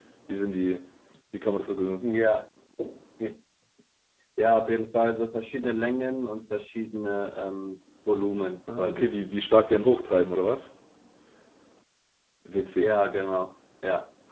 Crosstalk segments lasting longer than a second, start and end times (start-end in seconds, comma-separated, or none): none